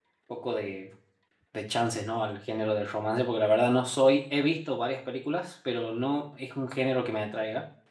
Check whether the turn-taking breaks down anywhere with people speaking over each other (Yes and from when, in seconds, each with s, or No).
No